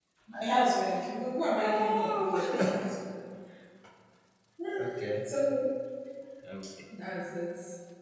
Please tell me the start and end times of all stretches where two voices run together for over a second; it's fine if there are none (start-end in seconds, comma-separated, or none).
1.6-3.0